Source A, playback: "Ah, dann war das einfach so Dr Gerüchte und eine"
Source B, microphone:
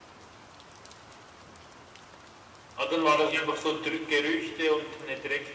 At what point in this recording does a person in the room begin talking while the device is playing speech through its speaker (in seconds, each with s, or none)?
none